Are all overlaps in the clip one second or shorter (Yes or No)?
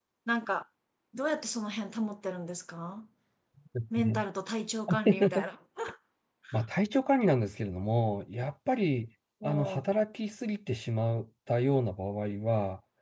Yes